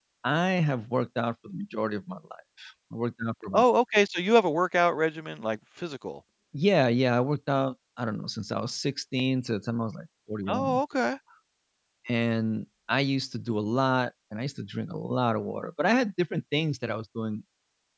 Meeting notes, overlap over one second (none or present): none